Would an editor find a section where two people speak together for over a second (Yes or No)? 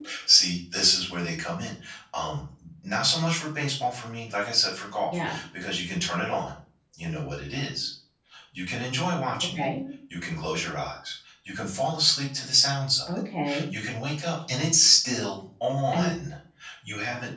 No